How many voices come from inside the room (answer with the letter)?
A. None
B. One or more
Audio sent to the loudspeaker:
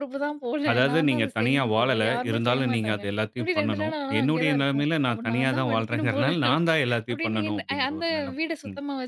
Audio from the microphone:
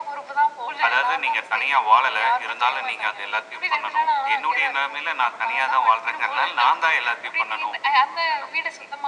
A